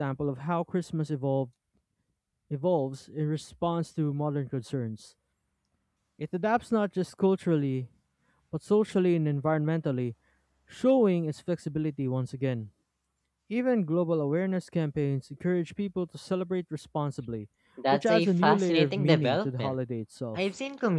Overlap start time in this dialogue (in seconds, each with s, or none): 17.9 s